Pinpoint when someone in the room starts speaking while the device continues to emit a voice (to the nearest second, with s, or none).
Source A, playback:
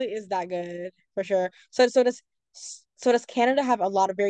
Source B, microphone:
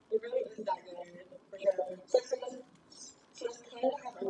none